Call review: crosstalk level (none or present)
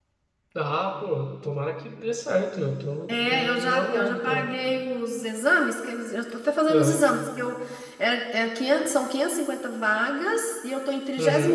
present